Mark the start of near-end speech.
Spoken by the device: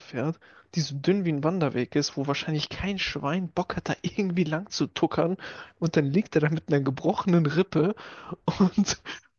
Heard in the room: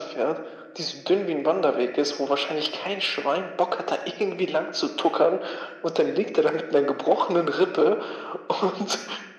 none

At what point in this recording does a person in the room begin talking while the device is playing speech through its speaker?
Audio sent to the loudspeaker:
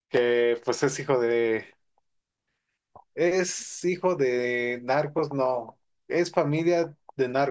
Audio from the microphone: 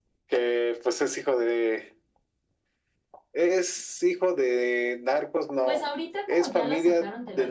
5.6 s

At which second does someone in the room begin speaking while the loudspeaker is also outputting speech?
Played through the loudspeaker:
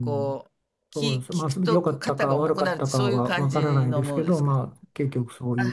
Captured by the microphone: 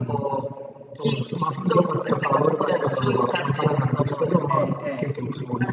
4.5 s

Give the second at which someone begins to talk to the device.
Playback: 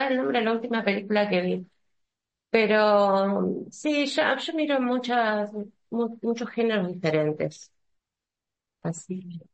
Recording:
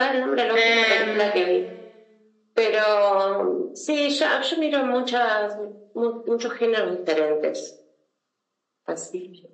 0.5 s

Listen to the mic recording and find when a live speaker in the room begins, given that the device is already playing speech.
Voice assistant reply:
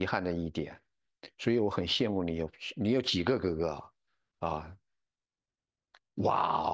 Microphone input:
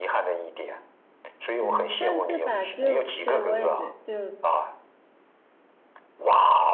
1.6 s

